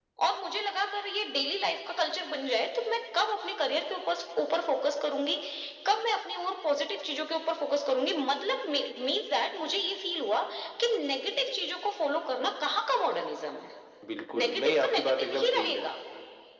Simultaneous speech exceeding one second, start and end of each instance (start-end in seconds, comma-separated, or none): 14.4-15.8